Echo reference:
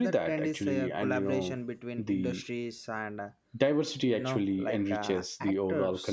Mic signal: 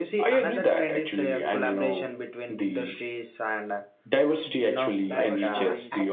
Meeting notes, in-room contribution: present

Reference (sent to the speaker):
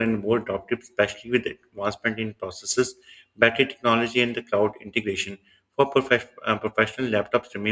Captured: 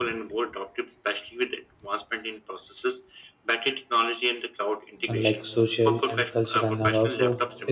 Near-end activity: present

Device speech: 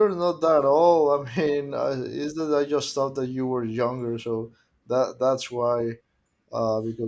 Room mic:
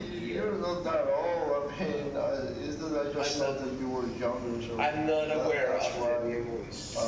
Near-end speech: present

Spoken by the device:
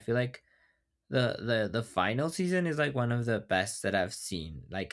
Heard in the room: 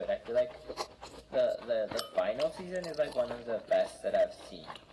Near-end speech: none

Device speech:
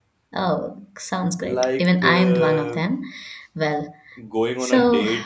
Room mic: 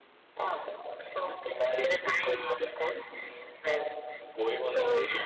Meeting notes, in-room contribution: none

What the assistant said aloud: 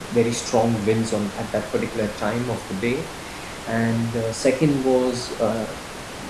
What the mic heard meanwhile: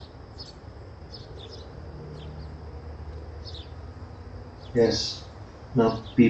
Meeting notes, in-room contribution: present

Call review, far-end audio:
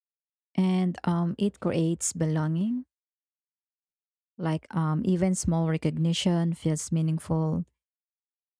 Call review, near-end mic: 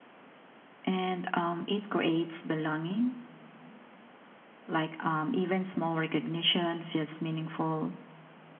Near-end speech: none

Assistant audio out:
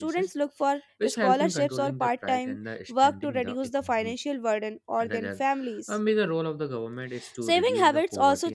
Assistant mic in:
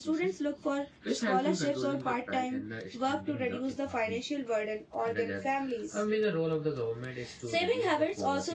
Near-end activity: none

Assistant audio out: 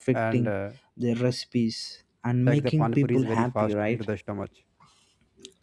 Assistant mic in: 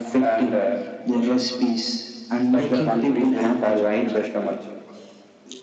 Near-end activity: present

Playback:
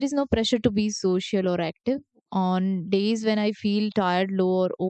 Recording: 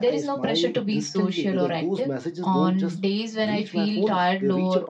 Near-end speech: present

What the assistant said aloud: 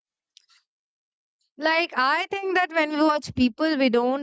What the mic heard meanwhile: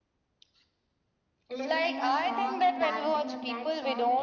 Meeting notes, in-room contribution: present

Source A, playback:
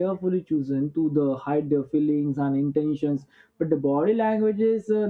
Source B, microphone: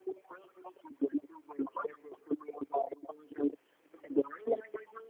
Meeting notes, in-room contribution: none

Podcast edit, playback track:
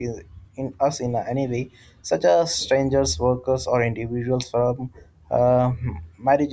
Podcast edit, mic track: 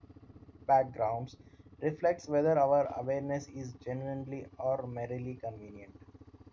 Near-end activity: present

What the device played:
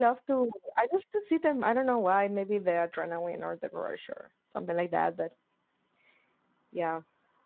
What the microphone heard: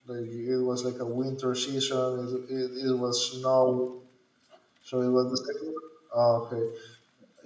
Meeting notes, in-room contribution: present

